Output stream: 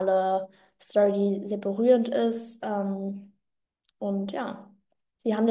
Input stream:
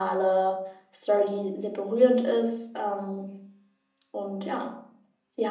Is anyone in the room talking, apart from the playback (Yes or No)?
No